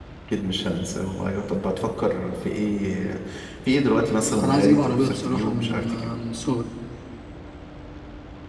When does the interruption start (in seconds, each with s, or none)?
4.4 s